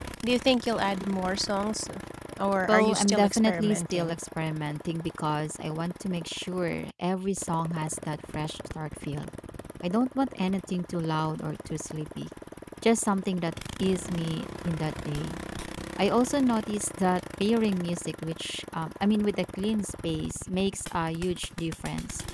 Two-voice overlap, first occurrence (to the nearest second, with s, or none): 3 s